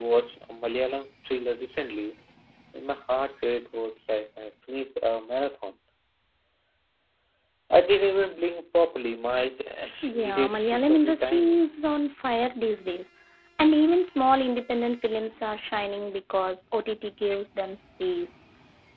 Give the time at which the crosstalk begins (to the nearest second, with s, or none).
10 s